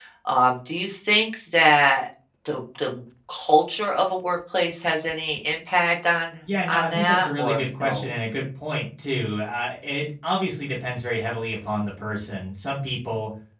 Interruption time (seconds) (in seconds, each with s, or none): 6.4 s